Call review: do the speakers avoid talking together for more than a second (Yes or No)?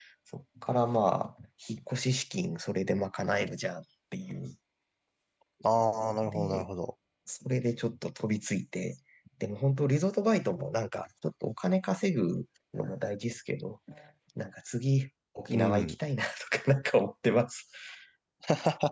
Yes